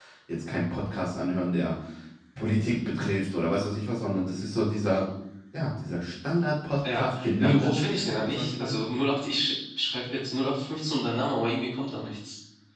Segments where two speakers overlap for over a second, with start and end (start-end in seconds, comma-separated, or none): 6.9-8.8